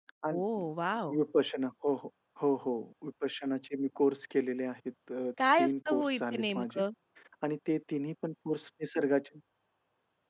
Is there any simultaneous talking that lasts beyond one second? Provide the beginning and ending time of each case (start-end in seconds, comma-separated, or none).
5.6-6.8